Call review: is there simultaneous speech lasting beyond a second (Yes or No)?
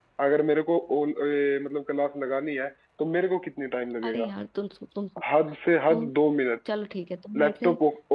No